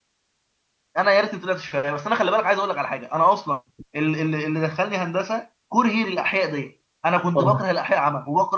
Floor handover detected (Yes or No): No